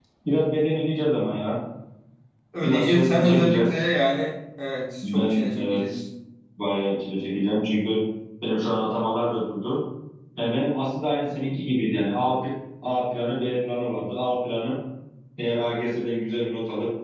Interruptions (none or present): present